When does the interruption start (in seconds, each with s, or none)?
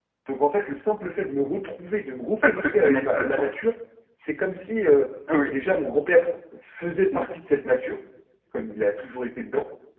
2.4 s